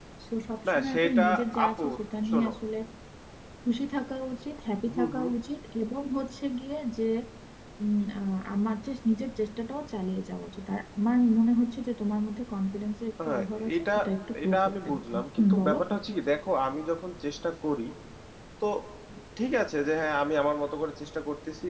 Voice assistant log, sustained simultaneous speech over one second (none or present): present